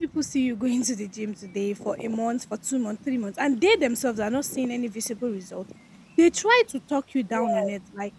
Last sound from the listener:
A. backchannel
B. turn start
A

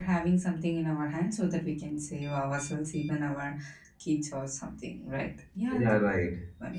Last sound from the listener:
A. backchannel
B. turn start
B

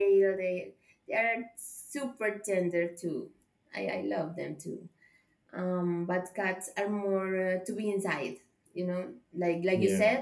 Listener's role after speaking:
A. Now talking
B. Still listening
B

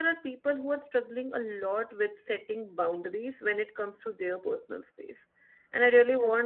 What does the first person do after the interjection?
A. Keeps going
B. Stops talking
A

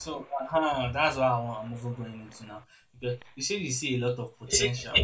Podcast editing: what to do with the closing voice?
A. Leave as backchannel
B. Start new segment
A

